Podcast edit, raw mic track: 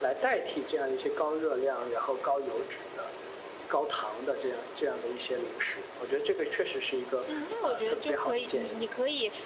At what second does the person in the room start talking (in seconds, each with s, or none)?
7.2 s